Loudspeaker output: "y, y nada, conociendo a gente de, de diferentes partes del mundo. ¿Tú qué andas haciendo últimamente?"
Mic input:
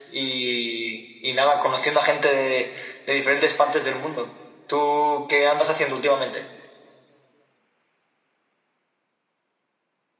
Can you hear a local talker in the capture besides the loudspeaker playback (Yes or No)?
No